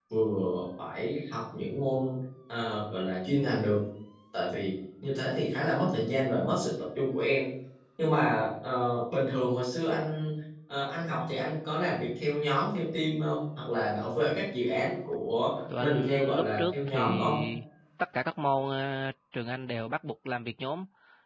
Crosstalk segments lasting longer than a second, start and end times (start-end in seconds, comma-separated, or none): 15.8-17.3